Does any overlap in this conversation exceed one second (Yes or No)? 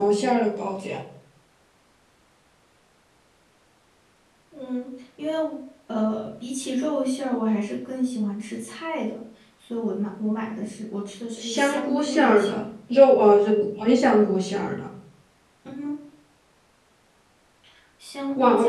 Yes